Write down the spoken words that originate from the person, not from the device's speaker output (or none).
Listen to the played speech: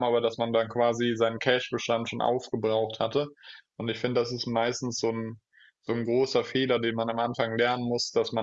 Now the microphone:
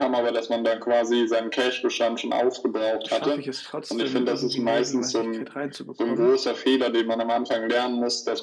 schaffe ich es trotzdem, irgendwie eine Regelmäßigkeit reinzubekommen.